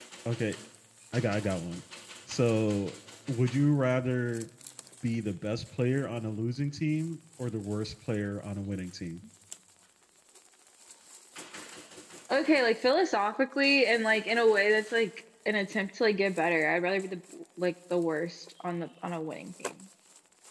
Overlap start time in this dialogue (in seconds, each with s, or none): none